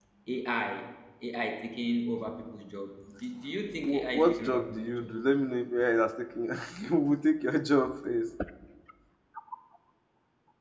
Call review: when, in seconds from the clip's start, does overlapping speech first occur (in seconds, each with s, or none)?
3.7 s